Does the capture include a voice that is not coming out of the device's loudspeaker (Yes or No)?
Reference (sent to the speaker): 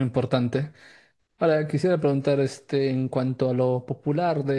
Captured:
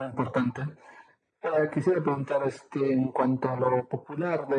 No